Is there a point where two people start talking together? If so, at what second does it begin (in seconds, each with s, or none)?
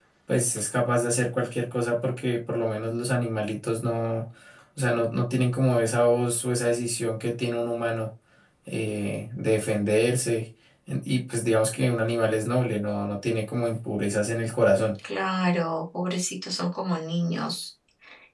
none